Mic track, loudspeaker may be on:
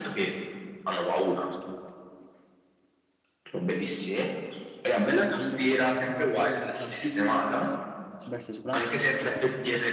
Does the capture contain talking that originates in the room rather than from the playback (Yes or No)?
Yes